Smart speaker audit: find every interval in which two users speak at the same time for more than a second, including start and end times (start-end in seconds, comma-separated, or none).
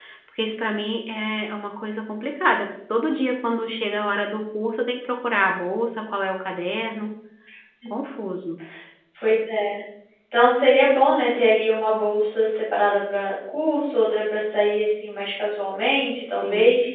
none